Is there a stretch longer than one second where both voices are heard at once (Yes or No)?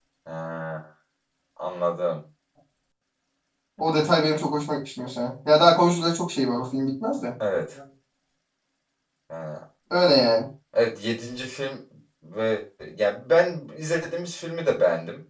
No